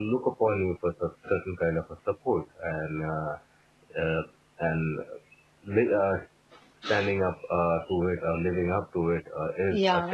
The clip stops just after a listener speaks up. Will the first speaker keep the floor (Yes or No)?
No